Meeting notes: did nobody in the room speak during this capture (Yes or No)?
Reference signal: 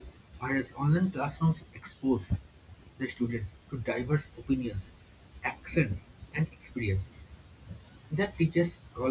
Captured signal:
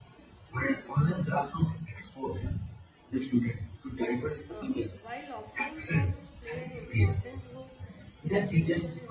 No